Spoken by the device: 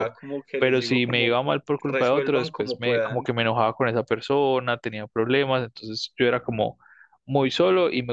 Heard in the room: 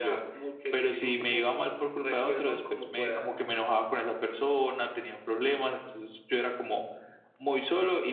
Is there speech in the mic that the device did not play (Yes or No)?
No